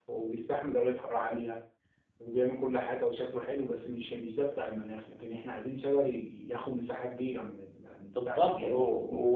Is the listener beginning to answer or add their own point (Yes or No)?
Yes